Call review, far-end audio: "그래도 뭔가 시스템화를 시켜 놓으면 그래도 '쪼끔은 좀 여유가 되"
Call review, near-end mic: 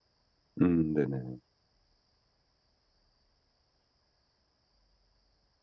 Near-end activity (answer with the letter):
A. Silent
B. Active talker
B